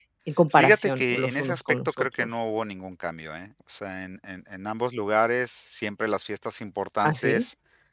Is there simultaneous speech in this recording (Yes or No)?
Yes